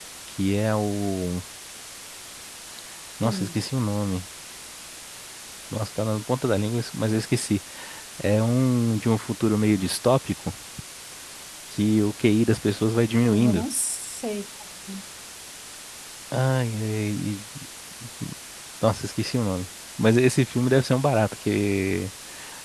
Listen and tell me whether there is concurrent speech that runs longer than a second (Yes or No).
No